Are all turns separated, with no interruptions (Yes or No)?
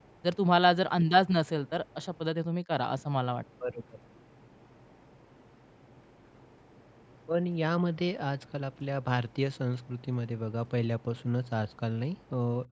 Yes